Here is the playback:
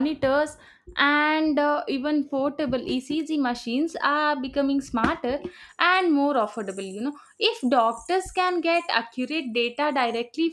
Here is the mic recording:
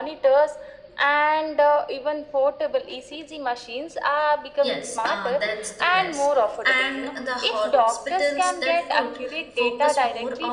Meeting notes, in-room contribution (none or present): present